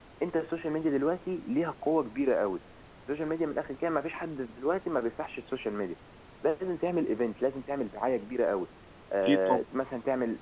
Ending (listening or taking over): listening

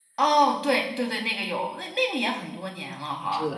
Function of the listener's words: taking over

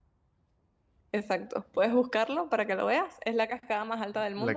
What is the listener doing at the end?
taking over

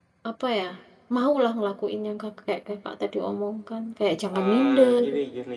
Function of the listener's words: taking over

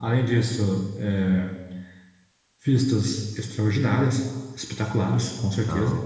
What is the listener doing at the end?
listening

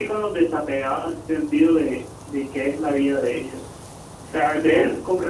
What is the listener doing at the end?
listening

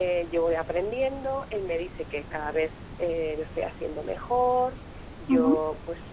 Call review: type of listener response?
listening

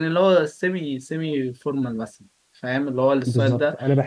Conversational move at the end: taking over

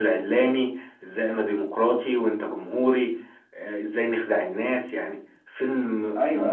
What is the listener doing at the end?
taking over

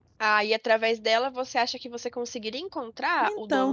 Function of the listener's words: taking over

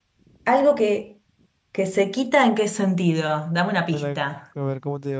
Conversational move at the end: taking over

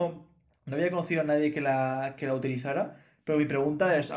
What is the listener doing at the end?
listening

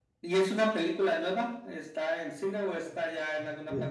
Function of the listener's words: taking over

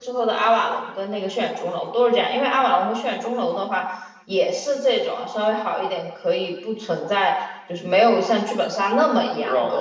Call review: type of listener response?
taking over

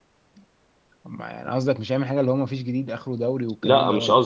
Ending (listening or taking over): taking over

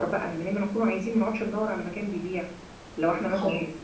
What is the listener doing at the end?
taking over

